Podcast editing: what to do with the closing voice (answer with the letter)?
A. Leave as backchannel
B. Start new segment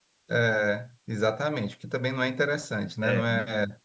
A